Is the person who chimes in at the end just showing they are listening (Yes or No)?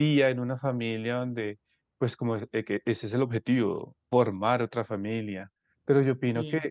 Yes